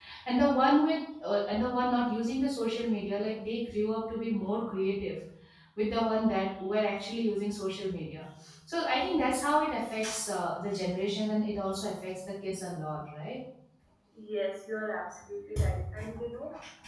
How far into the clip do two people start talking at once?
none

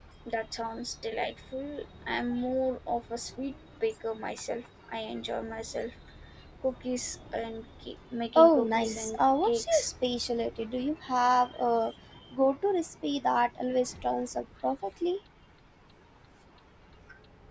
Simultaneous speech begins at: 8.3 s

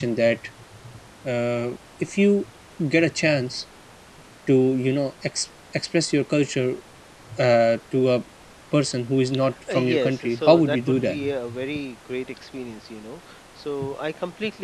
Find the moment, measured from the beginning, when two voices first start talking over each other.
9.7 s

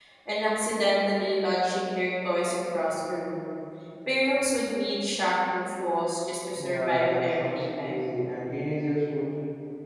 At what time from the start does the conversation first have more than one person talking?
6.6 s

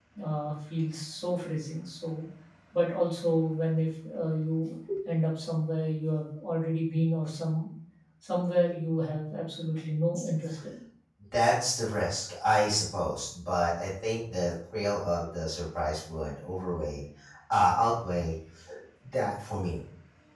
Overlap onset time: none

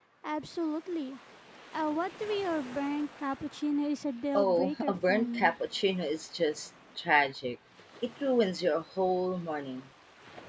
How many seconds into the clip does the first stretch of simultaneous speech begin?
4.3 s

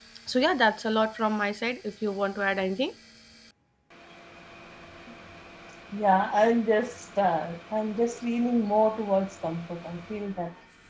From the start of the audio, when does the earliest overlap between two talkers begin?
none

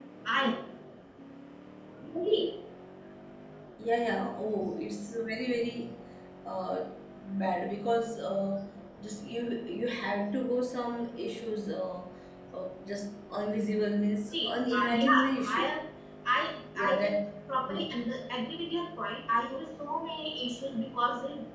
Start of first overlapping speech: 14.3 s

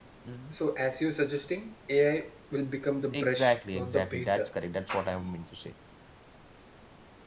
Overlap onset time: 3.1 s

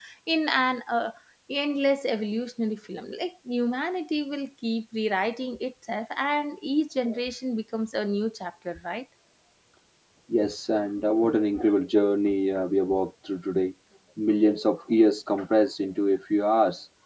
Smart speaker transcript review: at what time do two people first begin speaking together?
none

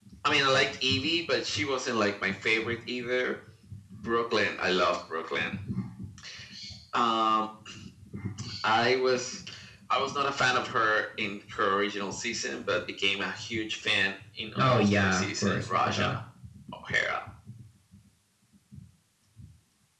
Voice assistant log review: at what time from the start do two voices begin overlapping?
14.6 s

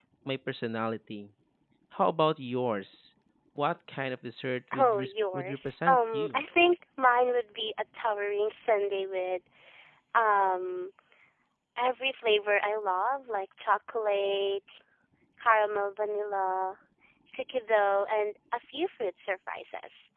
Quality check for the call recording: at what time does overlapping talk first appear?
4.7 s

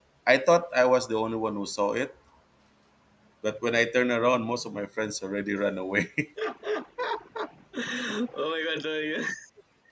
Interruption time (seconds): none

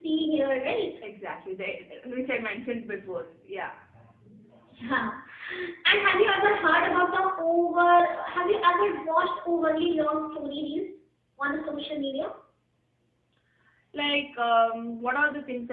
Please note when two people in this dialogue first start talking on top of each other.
none

